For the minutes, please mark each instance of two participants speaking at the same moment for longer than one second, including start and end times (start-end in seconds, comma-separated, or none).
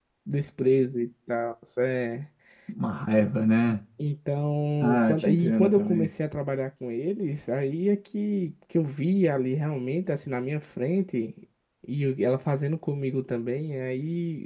4.8-6.1